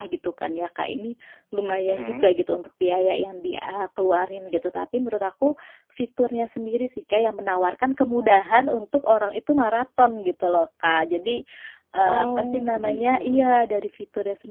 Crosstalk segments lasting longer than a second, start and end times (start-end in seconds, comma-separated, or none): 12.0-13.5